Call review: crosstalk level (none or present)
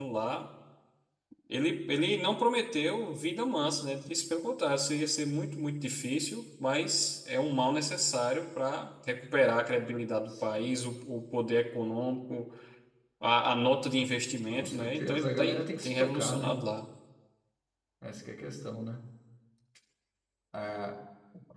present